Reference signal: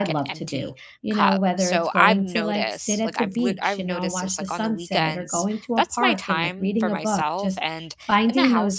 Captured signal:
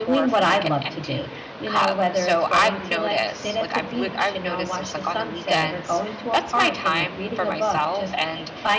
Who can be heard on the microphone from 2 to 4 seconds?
echo only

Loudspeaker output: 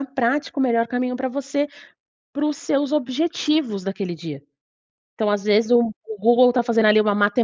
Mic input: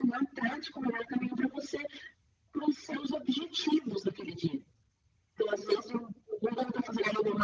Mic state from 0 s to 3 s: echo only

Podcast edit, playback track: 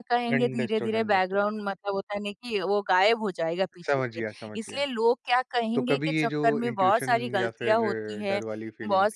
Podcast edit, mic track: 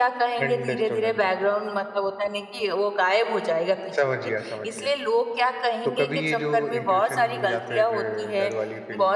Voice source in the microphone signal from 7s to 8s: echo only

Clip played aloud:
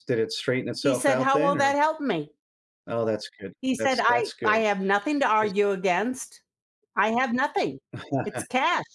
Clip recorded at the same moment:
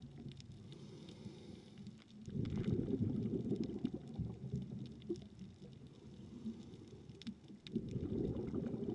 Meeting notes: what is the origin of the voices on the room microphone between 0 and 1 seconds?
neither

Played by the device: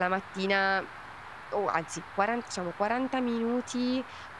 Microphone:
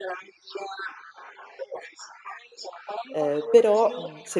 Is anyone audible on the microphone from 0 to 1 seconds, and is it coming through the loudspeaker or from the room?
echo only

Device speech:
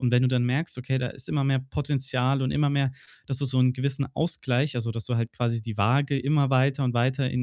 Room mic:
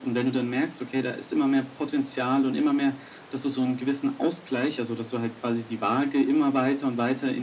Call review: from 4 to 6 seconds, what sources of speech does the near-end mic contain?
echo only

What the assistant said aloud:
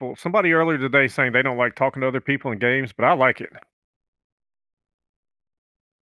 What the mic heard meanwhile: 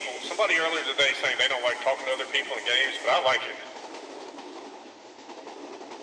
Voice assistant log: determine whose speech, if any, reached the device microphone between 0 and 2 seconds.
echo only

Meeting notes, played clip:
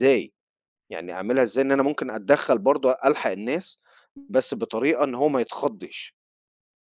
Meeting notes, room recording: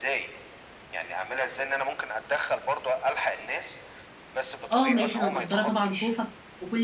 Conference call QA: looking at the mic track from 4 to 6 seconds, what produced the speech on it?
both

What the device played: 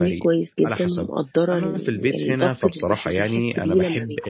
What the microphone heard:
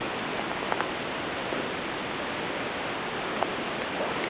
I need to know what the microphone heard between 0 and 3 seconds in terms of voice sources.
neither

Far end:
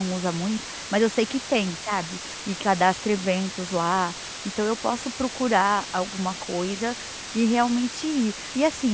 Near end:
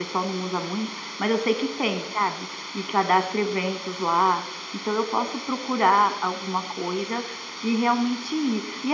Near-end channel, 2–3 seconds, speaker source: echo only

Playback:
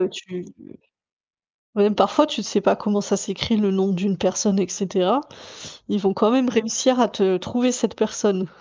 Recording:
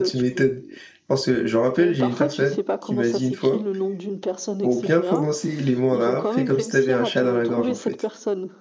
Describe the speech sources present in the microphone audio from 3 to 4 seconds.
both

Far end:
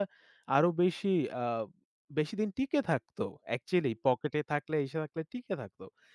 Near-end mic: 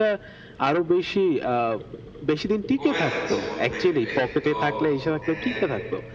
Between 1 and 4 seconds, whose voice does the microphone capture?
both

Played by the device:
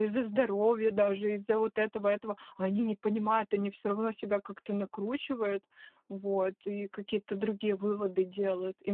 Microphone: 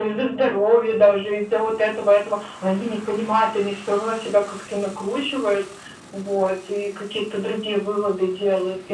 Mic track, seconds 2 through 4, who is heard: echo only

